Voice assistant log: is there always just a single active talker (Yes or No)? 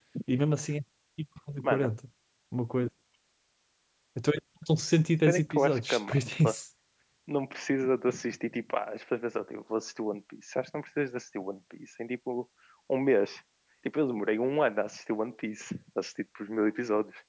No